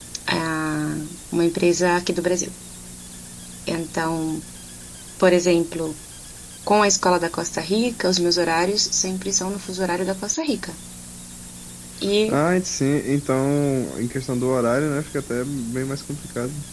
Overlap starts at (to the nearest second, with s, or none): none